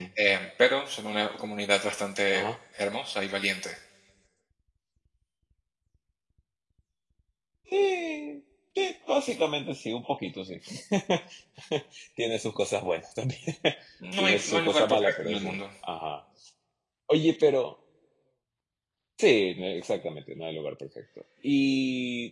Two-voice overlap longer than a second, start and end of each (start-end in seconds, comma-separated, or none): 14.2-15.6